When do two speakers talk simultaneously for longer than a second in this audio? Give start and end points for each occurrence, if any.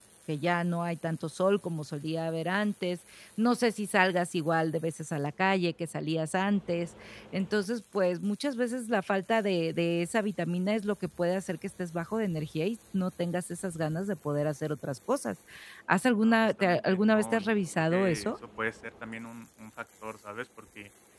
16.2-18.3

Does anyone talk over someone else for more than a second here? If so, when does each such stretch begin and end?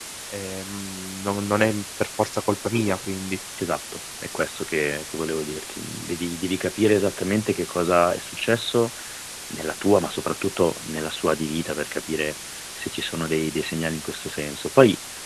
none

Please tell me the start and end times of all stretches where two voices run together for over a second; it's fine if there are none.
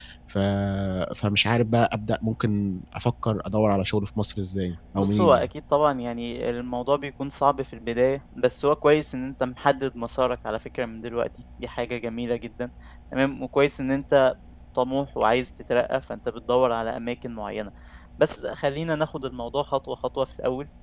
none

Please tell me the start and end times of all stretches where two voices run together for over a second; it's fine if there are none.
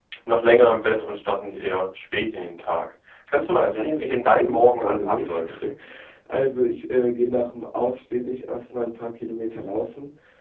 3.5-5.4

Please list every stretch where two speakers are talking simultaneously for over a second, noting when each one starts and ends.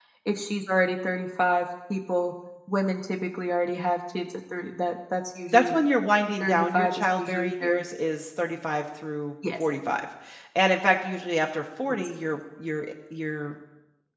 6.4-7.8

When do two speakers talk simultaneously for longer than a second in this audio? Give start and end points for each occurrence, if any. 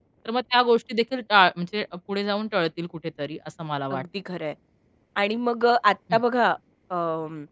none

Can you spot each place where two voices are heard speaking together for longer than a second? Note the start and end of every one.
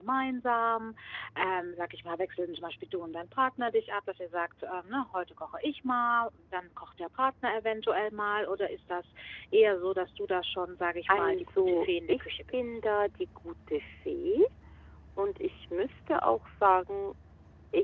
11.1-12.8

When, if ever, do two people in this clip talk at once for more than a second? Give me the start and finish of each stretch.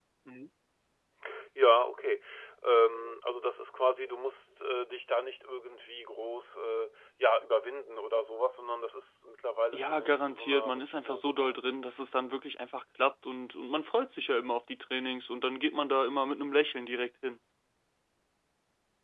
9.7-11.7

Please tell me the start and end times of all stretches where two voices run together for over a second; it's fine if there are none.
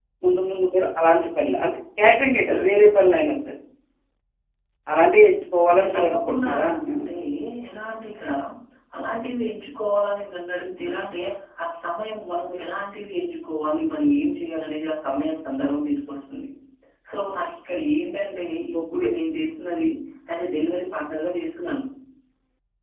5.7-7.1

